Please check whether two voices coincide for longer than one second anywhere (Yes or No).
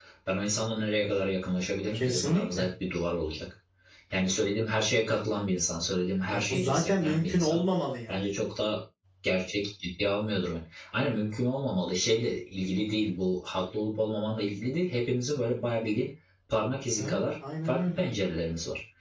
Yes